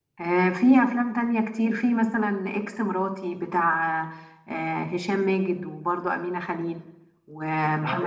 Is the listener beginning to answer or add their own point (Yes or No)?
Yes